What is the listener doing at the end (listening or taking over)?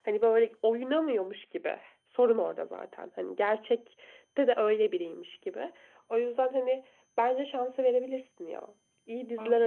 listening